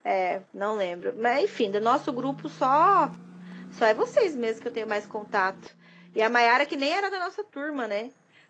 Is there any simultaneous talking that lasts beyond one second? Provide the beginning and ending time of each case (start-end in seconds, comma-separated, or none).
none